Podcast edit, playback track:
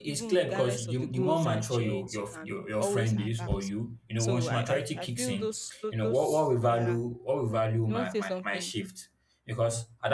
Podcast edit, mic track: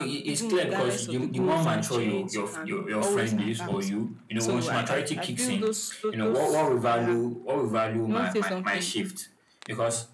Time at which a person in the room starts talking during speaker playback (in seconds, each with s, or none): none